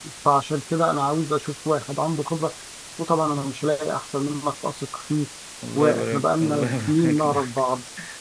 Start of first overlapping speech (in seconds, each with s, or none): 5.8 s